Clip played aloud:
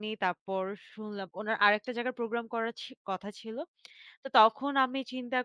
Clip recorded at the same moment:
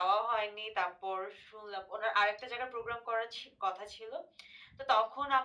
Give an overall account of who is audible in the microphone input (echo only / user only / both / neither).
echo only